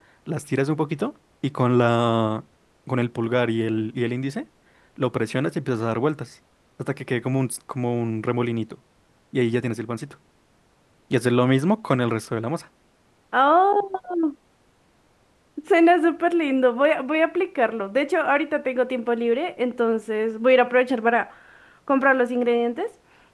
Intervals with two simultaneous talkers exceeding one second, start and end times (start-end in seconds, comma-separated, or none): none